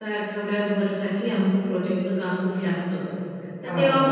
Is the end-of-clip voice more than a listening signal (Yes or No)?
No